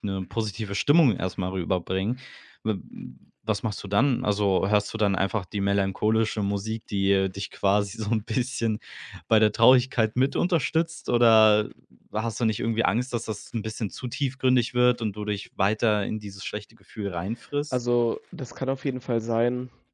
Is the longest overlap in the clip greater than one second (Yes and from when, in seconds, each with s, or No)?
No